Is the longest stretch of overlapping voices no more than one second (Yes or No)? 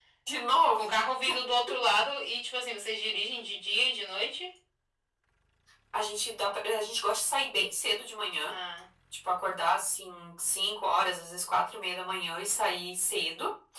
Yes